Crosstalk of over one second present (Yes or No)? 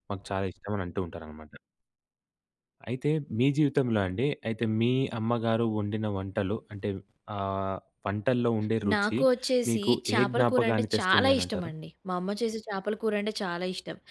Yes